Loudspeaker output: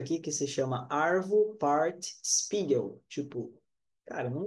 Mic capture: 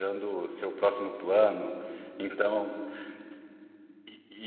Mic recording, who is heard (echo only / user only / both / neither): user only